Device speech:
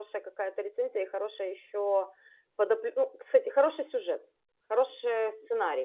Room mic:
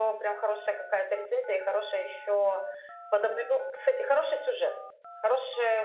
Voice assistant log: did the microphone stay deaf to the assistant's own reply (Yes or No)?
No